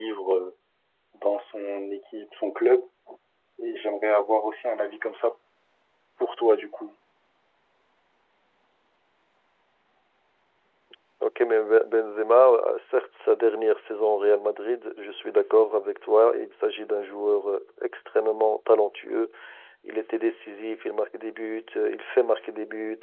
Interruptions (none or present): none